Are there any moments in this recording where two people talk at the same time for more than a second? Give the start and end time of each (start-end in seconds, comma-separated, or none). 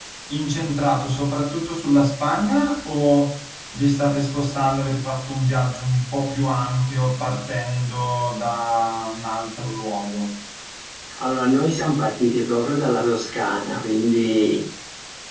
none